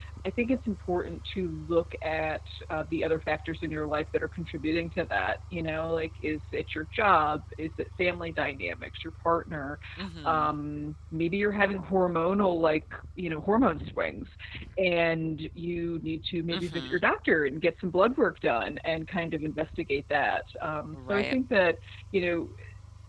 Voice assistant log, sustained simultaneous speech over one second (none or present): none